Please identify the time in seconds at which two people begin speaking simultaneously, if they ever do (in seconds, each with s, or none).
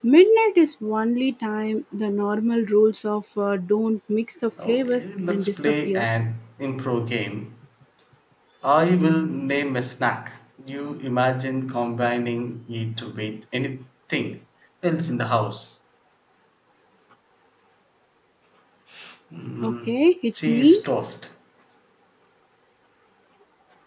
4.7 s